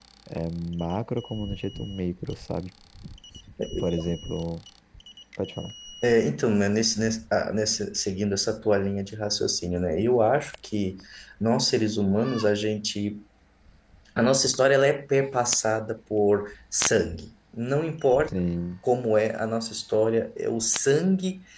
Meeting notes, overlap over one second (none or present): none